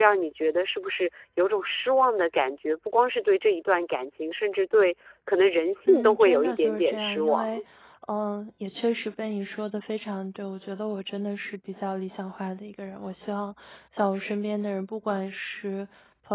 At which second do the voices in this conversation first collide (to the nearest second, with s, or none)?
6 s